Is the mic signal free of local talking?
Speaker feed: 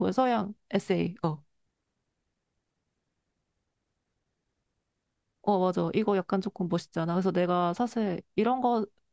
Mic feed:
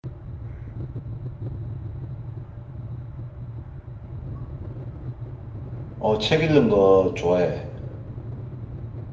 No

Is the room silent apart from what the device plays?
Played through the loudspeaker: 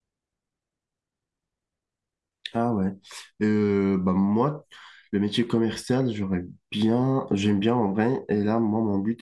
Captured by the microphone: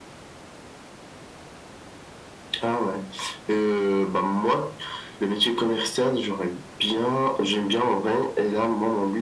Yes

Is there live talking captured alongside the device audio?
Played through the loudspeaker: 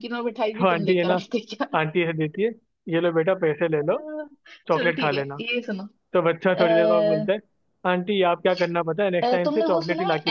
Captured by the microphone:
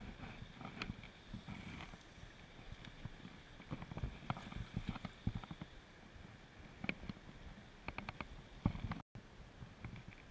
No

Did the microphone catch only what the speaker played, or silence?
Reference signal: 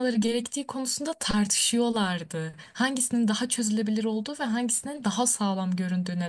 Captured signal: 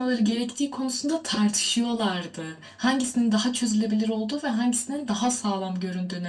Yes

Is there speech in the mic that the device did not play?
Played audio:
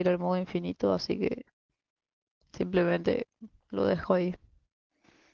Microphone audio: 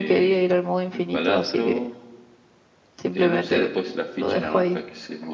Yes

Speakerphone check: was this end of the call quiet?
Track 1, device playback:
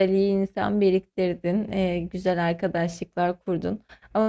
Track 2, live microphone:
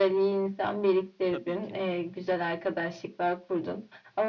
No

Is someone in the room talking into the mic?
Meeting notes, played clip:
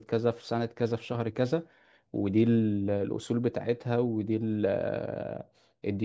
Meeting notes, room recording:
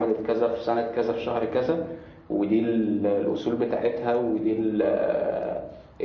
No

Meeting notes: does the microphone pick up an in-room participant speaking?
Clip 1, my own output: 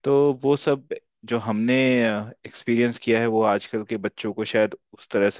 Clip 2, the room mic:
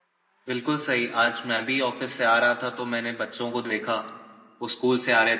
Yes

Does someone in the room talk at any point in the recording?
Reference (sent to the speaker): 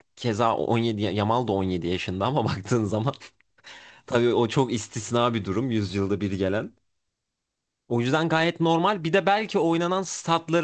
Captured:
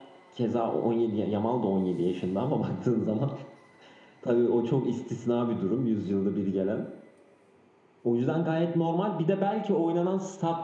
No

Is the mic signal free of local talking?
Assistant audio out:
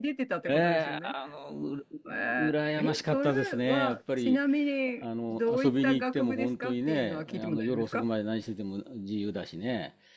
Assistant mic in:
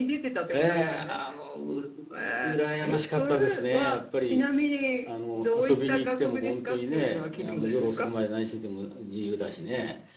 Yes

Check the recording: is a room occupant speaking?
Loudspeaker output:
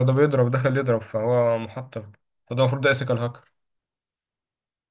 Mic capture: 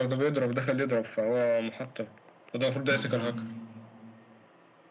Yes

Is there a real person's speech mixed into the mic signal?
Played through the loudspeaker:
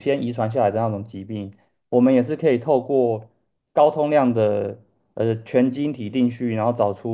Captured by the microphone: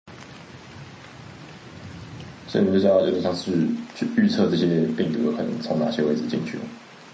Yes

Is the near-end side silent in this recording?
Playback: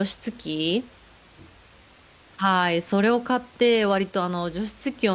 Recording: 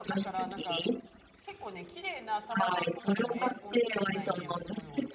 No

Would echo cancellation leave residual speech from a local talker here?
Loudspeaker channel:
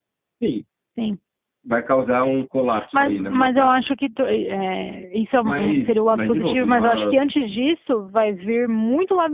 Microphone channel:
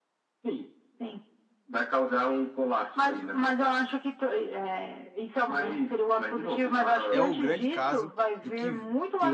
Yes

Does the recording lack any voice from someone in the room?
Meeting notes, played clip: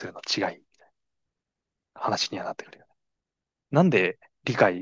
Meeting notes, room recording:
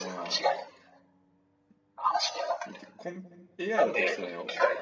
No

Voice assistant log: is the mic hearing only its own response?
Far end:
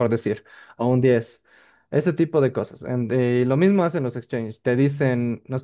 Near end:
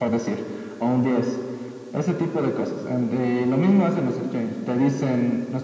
Yes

